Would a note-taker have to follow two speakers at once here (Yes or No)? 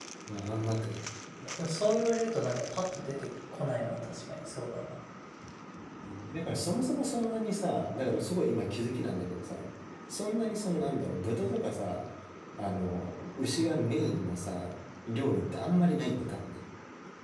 No